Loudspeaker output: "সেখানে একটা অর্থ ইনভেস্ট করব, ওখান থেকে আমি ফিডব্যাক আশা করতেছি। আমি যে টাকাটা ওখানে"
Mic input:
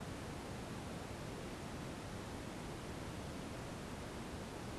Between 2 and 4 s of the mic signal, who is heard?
neither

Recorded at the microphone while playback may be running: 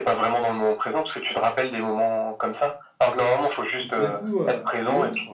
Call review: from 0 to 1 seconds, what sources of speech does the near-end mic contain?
echo only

